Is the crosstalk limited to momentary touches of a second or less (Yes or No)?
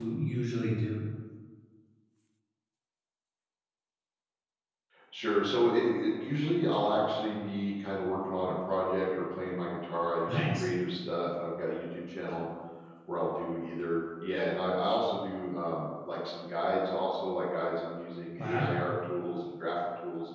Yes